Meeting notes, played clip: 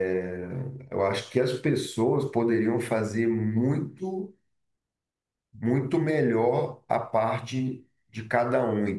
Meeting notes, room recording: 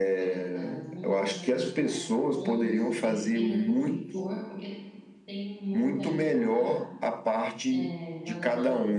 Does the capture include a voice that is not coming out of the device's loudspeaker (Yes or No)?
Yes